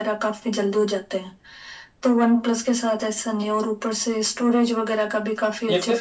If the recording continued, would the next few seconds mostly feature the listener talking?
Yes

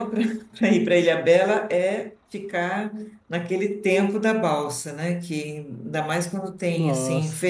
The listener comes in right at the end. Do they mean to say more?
Yes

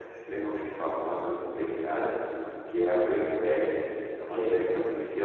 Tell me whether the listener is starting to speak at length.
No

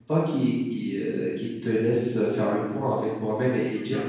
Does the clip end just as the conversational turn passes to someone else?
Yes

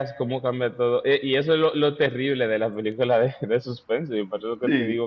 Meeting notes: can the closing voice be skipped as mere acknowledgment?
Yes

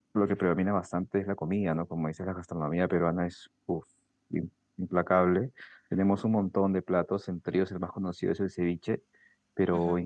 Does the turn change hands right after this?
No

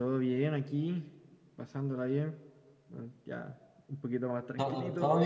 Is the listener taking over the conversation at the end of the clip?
Yes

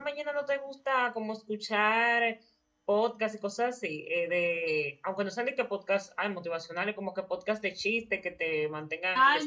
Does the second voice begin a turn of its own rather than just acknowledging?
Yes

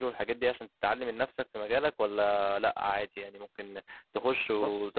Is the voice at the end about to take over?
No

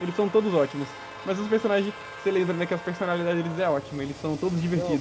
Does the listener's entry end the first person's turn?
Yes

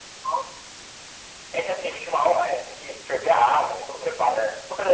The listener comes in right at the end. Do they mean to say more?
No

